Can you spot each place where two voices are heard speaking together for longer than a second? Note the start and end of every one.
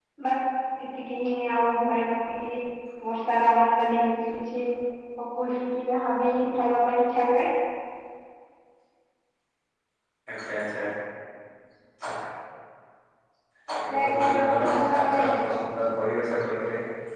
13.9-15.2

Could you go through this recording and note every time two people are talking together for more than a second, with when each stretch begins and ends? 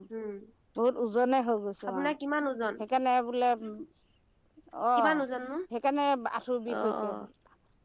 none

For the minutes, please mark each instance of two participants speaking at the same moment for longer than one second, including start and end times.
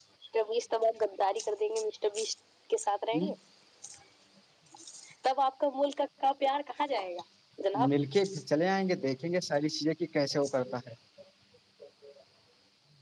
none

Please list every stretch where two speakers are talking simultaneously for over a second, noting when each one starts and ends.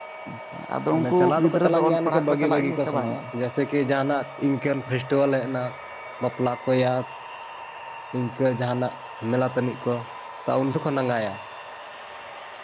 0.9-3.2

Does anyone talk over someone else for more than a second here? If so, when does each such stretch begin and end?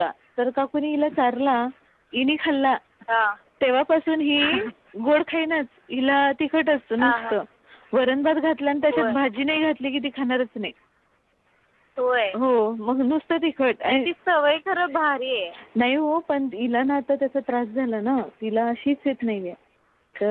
none

